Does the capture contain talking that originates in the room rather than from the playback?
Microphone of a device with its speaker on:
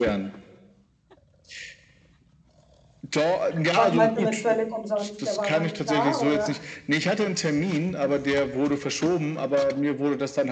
Yes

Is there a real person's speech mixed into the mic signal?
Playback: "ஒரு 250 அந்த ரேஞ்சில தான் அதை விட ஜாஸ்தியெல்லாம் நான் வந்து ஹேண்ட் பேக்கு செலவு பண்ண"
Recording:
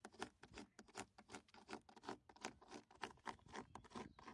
No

